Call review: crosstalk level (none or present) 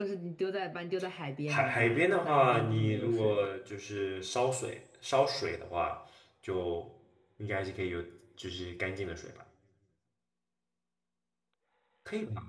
present